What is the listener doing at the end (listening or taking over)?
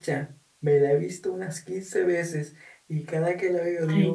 listening